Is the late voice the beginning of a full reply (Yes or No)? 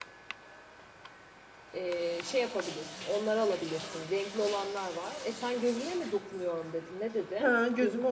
Yes